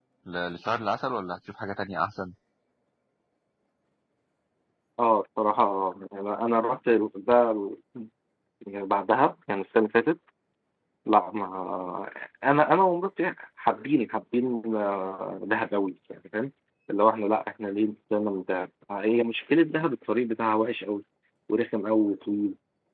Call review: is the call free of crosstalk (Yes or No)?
Yes